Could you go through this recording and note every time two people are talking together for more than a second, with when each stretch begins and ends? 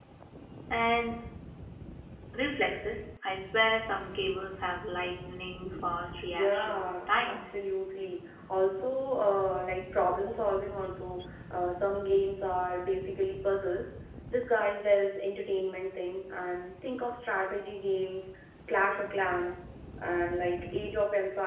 6.3-7.6

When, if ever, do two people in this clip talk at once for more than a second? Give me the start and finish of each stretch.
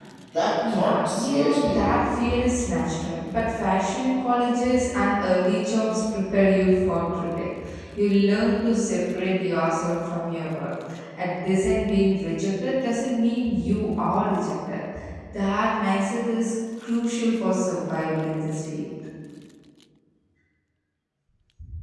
0.7-2.2

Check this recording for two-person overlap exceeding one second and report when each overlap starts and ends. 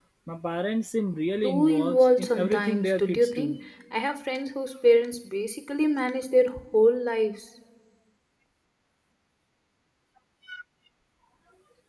1.4-3.6

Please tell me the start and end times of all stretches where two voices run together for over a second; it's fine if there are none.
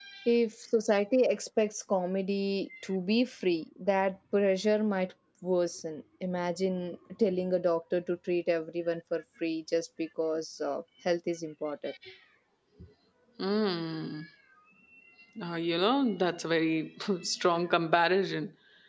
none

